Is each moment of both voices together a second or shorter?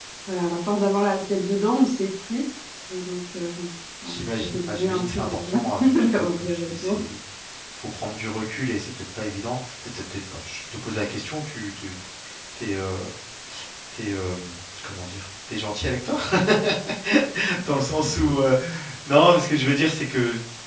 No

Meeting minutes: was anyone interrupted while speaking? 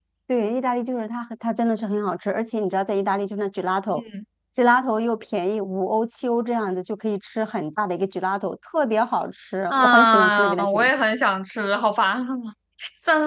Yes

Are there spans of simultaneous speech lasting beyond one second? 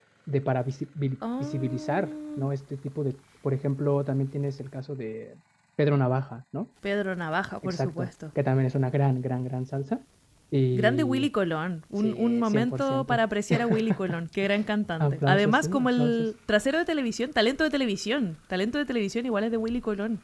Yes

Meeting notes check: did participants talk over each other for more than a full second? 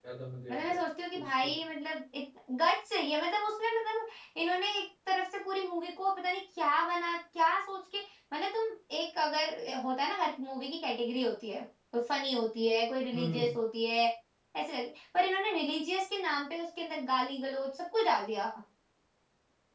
No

